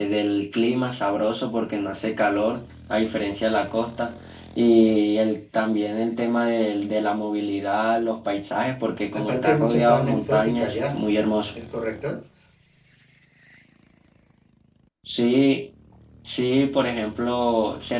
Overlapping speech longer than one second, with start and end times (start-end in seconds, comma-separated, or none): 9.1-11.1